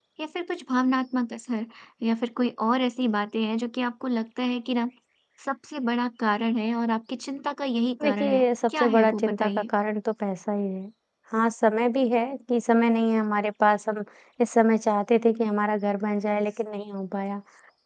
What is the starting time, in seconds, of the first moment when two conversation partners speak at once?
8 s

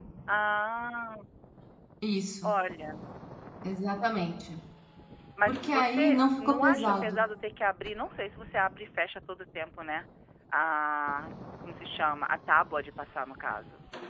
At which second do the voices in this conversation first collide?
5 s

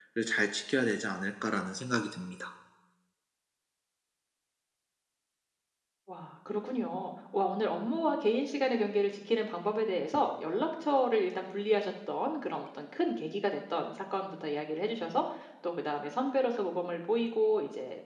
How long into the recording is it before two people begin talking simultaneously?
none

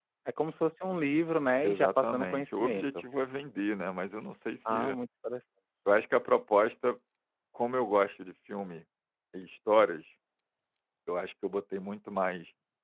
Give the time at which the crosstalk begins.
2 s

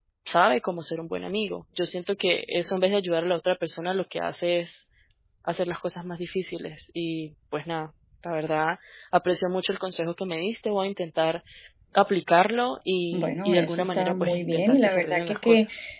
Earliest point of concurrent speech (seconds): 13 s

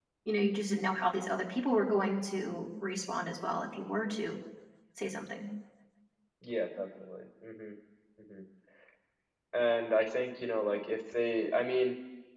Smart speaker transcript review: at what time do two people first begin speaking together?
none

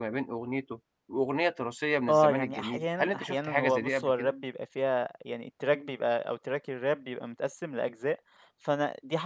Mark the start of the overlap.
2 s

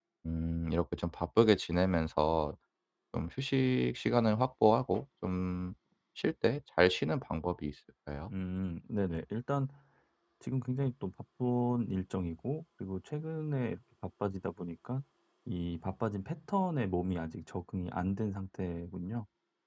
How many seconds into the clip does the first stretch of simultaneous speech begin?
none

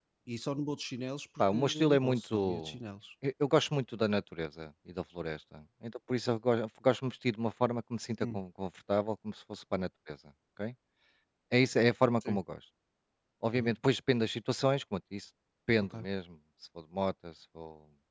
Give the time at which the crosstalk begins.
1 s

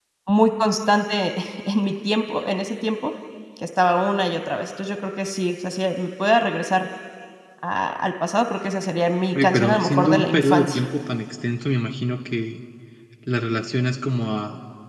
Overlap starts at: 9 s

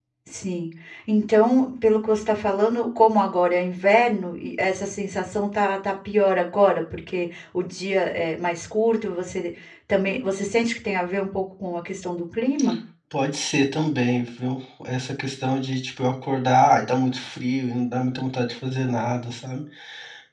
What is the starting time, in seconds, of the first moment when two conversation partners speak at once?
none

